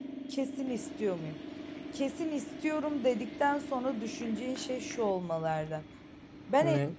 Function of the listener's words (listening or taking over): listening